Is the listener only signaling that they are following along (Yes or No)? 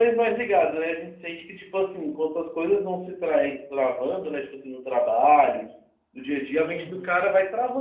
Yes